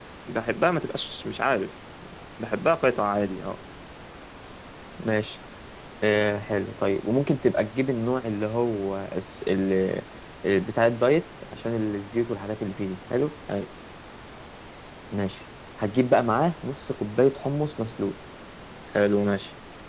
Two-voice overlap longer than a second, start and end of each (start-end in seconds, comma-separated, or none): none